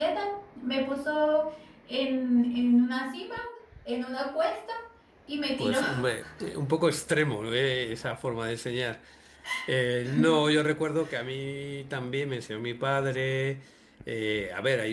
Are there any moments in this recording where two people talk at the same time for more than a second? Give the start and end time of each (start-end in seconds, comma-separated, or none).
none